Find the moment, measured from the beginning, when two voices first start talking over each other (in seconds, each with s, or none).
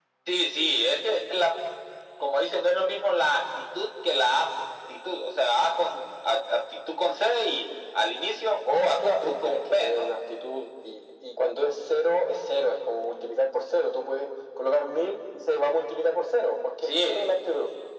8.8 s